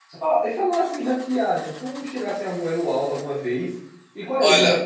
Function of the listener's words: listening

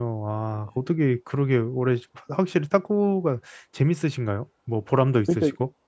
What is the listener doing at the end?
taking over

